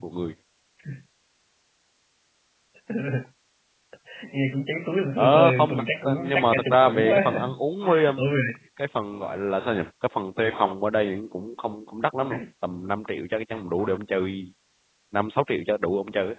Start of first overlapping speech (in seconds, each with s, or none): 5.2 s